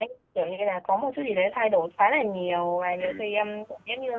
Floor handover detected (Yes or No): No